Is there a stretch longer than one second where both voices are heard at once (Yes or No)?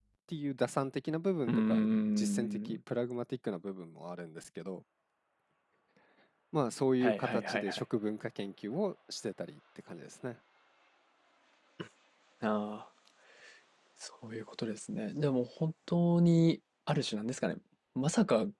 Yes